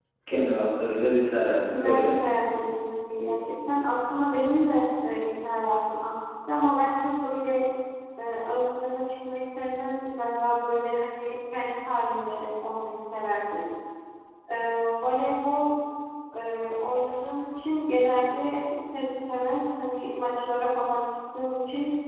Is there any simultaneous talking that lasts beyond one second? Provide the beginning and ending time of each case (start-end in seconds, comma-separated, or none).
none